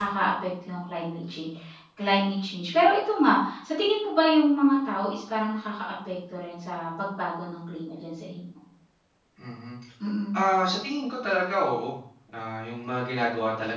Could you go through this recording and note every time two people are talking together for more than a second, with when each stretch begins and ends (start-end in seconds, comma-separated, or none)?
none